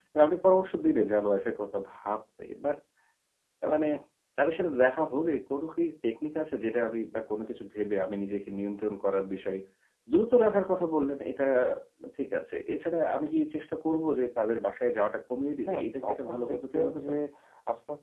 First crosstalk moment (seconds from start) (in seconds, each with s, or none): 15.6 s